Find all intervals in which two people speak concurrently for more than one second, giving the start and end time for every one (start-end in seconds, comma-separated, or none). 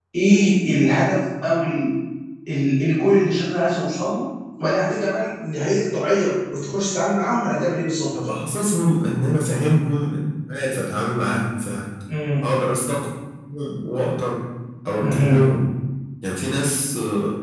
none